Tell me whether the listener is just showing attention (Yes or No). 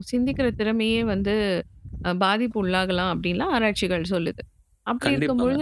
Yes